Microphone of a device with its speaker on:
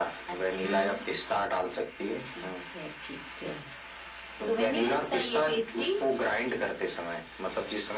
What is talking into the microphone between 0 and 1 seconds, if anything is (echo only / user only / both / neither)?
both